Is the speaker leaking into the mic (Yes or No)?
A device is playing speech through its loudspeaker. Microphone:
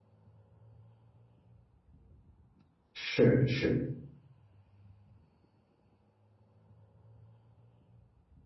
No